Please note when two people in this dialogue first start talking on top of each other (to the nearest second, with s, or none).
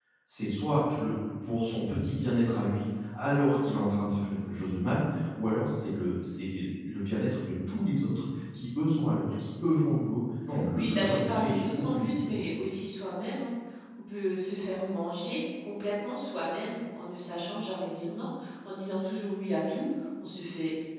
11 s